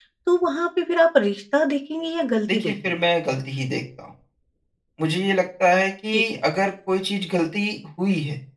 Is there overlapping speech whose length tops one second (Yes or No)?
No